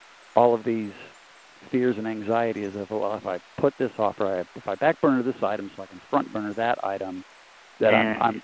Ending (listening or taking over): listening